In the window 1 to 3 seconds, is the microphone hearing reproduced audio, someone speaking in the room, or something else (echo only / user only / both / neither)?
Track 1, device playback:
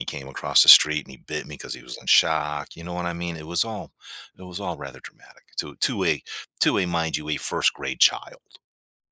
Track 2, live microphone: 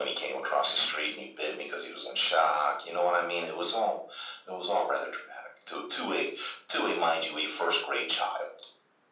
echo only